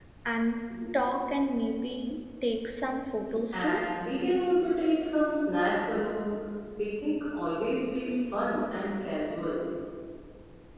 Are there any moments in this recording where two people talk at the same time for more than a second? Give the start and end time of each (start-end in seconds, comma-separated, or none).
none